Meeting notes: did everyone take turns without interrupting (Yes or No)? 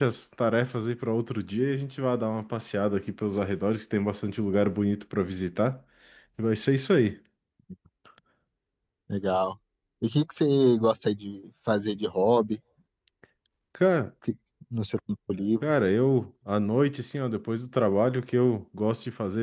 Yes